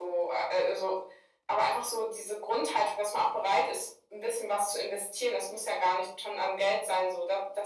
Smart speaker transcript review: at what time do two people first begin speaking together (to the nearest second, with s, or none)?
none